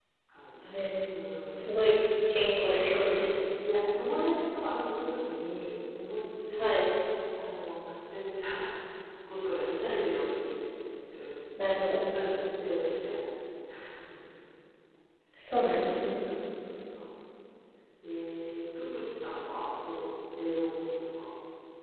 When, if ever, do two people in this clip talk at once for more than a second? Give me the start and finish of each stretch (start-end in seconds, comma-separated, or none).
none